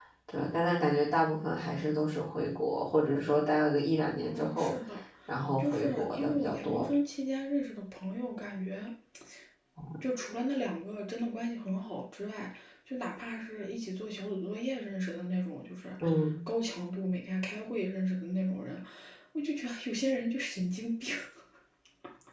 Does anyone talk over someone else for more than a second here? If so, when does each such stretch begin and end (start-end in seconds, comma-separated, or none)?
5.6-6.9